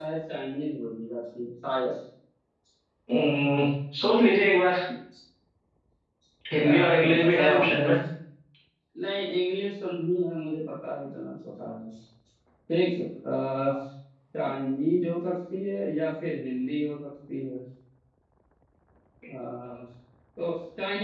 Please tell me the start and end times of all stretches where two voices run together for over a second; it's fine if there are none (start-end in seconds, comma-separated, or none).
6.6-7.9